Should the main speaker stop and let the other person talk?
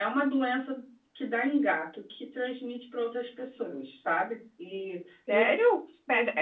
Yes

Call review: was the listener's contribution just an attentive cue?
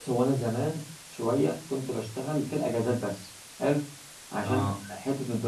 Yes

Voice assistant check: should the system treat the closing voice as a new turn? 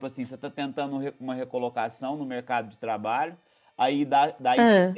No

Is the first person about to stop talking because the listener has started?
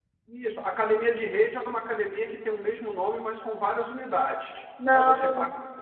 No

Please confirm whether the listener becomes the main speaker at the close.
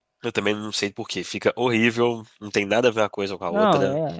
Yes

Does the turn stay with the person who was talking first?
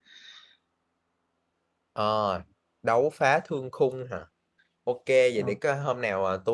Yes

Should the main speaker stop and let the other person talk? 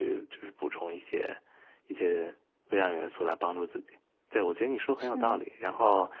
No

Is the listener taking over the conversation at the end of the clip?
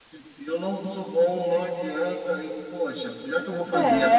Yes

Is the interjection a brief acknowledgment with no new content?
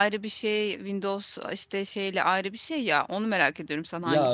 No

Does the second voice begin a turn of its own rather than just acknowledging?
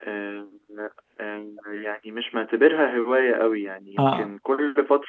No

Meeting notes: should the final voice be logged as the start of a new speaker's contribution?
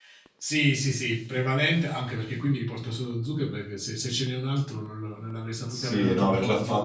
Yes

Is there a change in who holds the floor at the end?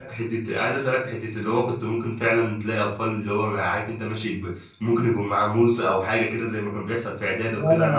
Yes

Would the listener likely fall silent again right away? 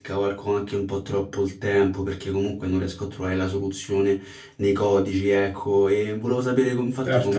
Yes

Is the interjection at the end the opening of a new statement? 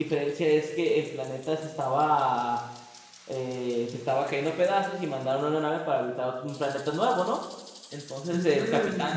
No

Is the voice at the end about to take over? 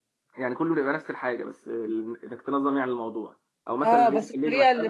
Yes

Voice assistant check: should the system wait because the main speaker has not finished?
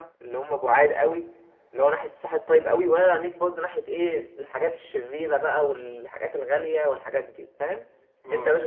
Yes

